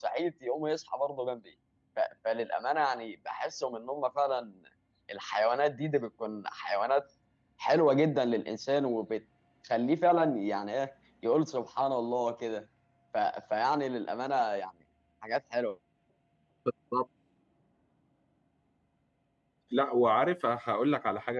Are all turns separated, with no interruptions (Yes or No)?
Yes